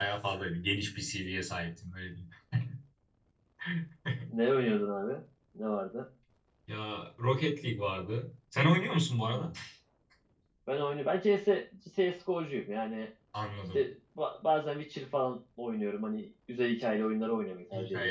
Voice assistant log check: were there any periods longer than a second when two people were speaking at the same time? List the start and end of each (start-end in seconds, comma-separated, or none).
none